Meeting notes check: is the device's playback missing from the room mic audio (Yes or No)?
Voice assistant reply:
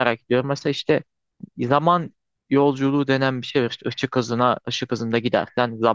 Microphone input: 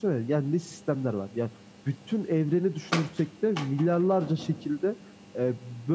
Yes